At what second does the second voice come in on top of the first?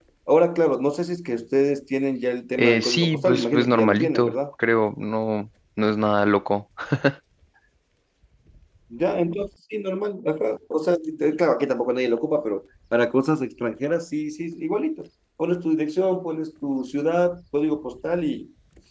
2.6 s

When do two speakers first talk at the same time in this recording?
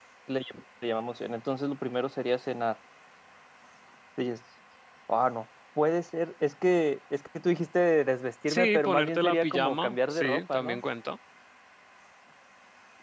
8.5 s

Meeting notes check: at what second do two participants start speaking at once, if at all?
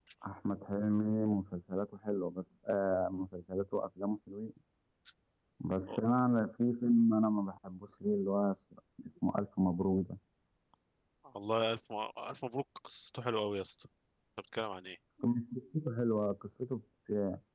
none

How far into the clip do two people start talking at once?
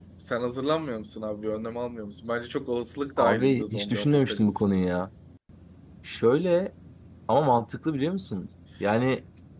3.2 s

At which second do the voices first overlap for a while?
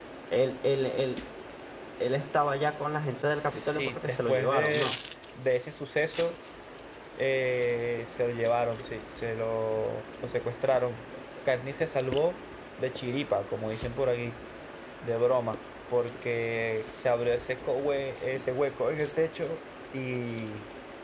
3.4 s

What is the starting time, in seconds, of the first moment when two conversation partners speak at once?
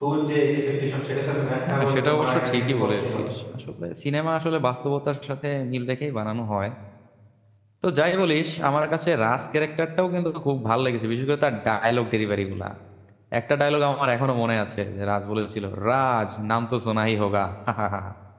1.7 s

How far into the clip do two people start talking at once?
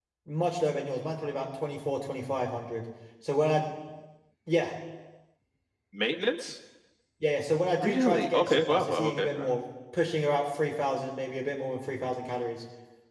7.8 s

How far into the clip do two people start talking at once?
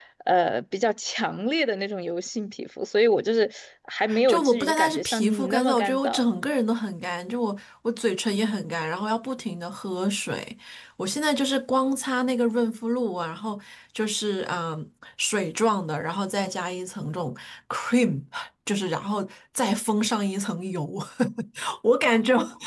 4.1 s

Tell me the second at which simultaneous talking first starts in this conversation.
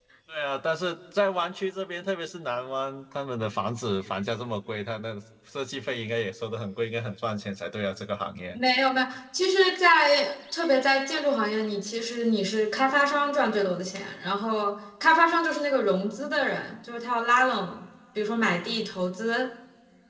none

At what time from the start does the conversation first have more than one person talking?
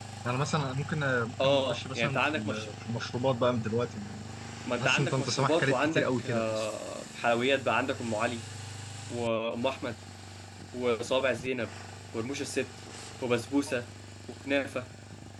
1.4 s

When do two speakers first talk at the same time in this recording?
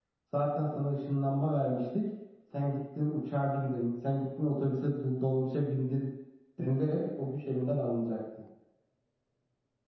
none

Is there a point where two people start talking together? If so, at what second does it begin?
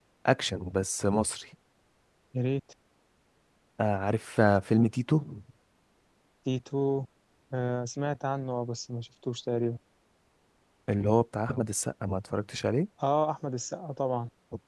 none

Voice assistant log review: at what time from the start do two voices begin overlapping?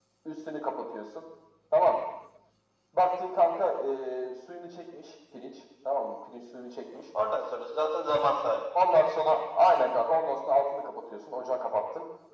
none

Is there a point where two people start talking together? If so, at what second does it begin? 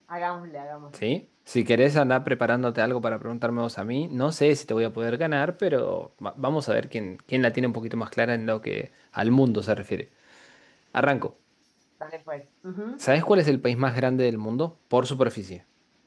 none

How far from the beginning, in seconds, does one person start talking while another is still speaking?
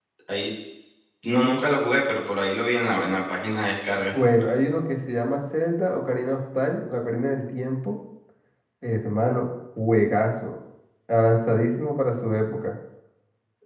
none

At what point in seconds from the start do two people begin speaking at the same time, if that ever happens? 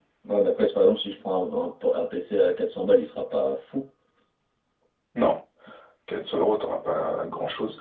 none

